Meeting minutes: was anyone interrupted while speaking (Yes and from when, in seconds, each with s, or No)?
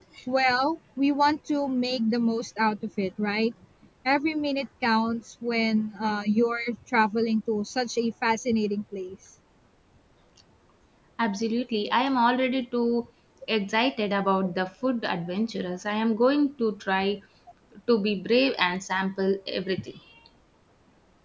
No